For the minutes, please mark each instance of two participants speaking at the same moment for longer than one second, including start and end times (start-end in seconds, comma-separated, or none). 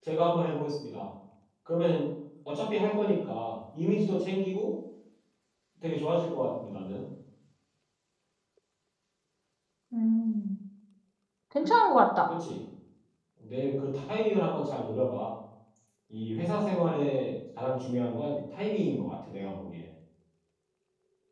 none